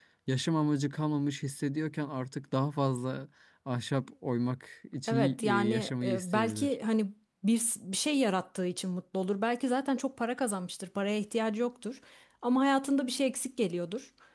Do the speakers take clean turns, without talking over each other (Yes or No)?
No